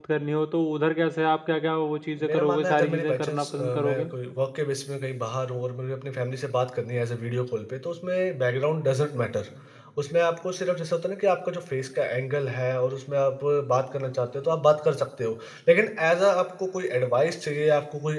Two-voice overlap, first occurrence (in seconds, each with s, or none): 2.2 s